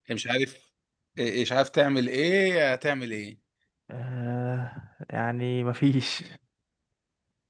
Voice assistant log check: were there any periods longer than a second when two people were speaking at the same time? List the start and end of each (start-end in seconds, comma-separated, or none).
none